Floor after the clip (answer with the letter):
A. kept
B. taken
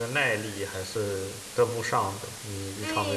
B